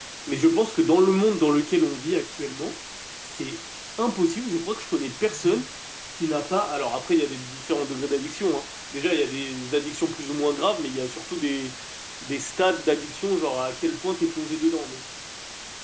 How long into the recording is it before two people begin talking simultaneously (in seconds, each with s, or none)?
none